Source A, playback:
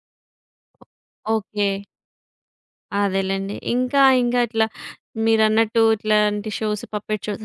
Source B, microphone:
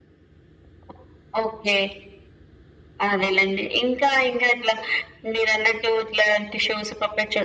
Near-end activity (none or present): none